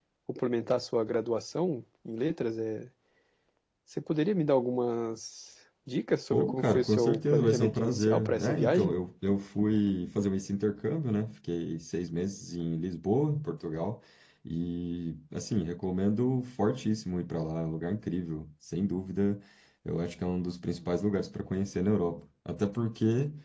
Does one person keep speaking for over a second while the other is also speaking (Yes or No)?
Yes